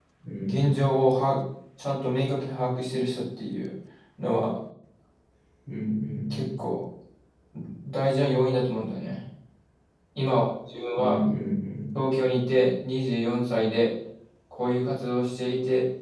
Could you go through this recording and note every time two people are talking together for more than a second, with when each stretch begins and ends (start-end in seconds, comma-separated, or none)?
none